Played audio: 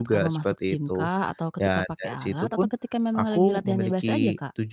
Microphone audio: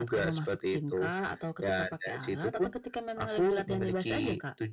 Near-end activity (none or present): none